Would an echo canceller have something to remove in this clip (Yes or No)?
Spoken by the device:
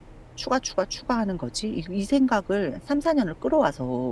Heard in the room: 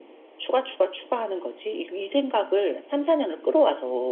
Yes